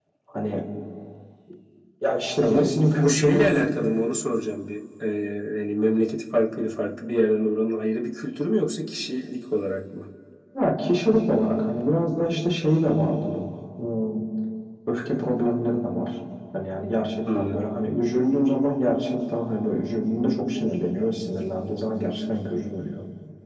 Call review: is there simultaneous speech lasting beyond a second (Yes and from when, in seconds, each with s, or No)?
Yes, from 2.4 s